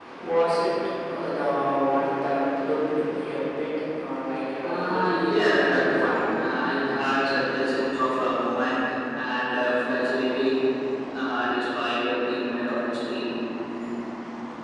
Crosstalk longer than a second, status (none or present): present